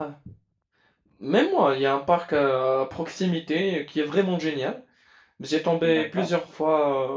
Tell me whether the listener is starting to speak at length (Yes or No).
No